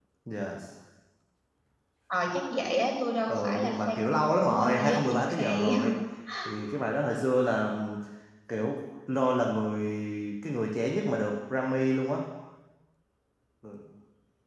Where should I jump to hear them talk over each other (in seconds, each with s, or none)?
3.3 s